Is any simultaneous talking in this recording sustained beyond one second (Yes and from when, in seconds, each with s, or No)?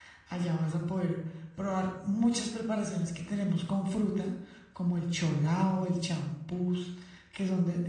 No